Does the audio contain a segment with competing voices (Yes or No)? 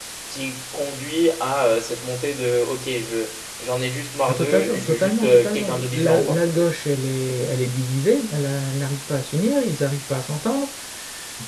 Yes